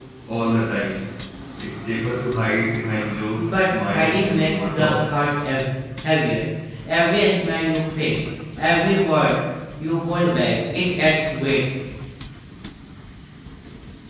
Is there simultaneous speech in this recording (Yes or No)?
Yes